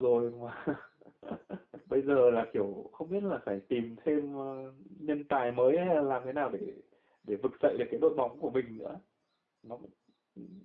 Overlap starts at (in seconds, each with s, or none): none